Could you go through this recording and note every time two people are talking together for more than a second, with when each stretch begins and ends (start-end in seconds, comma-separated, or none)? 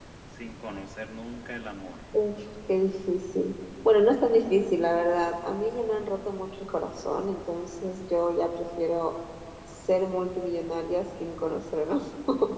none